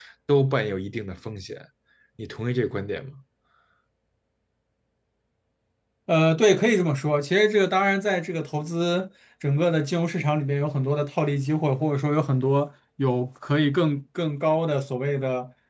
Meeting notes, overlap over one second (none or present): none